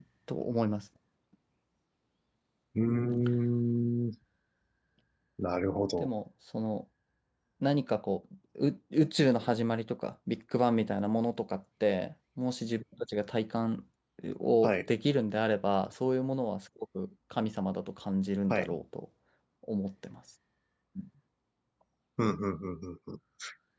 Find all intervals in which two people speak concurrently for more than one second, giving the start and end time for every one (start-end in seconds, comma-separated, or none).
none